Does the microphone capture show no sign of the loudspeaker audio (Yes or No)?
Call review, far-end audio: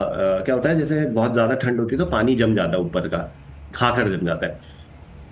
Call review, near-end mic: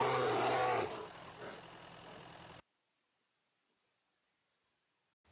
Yes